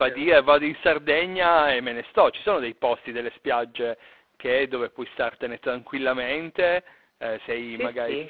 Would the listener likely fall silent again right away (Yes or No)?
Yes